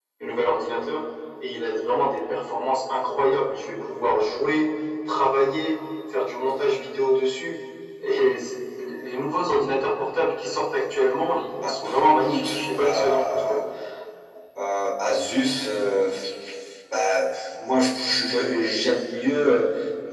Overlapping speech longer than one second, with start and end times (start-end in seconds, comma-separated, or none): 12.2-13.6